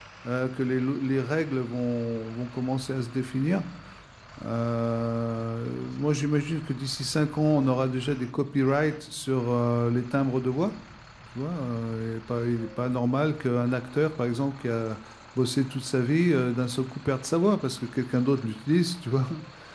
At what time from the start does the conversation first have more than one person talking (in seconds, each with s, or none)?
none